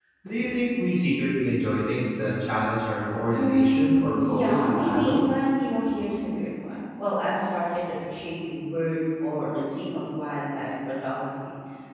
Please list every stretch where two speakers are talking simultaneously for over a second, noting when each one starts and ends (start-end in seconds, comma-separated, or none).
3.3-5.4